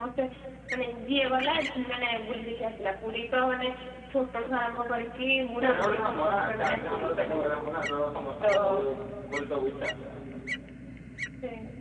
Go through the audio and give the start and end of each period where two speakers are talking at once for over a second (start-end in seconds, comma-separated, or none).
5.6-7.4